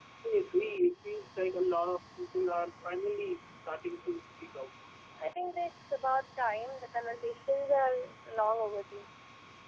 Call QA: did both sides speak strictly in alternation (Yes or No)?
Yes